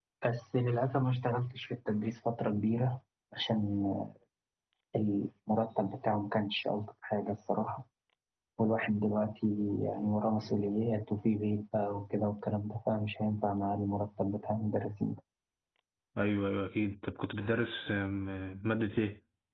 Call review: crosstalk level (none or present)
none